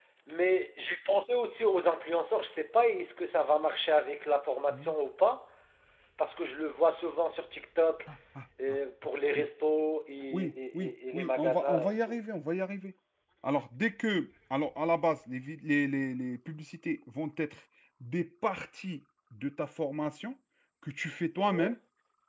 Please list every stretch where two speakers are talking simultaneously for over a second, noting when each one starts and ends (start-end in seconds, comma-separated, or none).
10.3-12.2